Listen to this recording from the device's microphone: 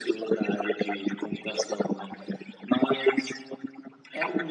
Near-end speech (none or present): none